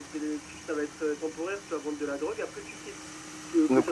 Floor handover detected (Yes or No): Yes